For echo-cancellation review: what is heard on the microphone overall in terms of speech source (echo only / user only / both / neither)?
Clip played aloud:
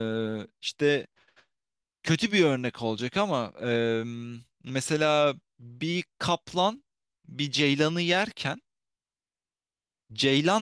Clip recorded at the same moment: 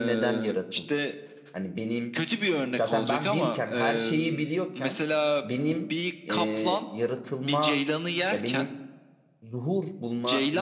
both